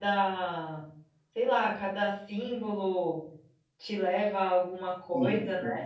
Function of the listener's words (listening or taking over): taking over